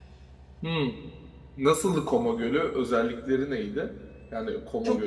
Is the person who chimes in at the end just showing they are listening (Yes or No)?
No